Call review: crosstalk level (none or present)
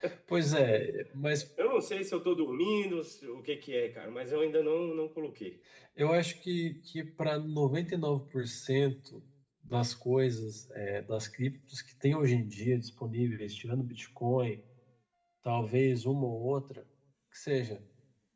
none